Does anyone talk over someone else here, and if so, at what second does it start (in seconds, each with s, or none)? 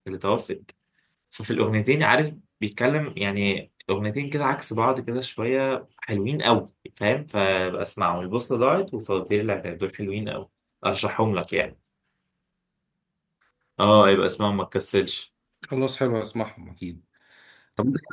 none